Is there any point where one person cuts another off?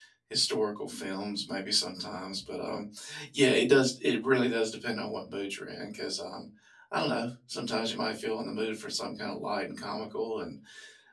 No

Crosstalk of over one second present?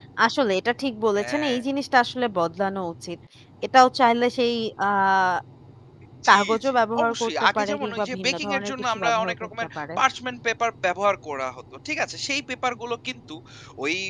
Yes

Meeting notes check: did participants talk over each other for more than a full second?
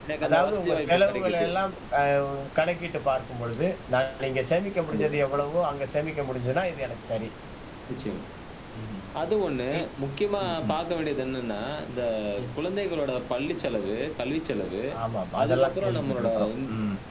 Yes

